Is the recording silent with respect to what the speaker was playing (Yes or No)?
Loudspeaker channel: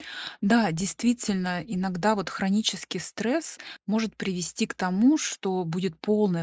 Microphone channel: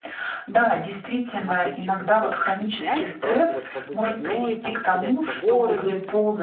No